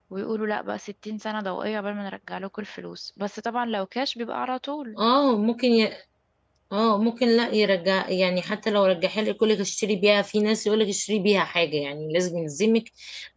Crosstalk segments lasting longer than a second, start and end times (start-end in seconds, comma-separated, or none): none